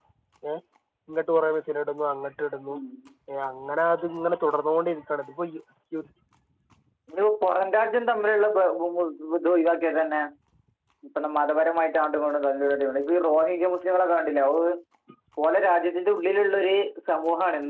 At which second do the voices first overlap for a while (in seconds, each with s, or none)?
none